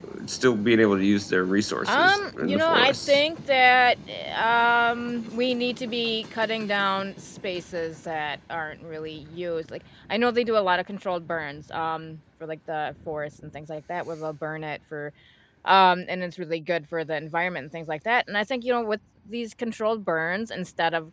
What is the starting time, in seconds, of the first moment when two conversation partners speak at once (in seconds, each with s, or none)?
1.9 s